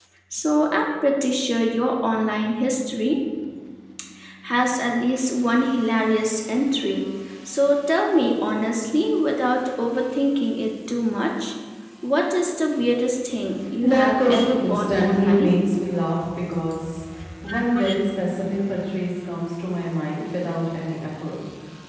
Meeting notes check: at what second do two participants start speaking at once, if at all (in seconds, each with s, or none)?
13.8 s